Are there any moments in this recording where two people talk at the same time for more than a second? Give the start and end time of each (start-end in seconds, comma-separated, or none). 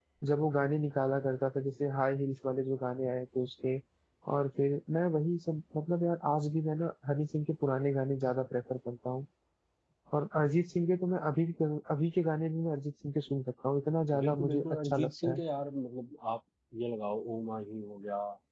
14.2-15.4